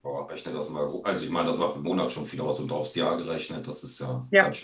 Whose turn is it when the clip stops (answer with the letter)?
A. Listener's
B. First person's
A